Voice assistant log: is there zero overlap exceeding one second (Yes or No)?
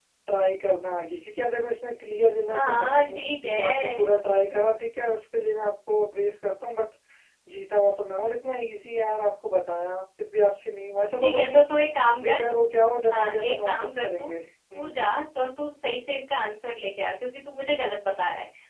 No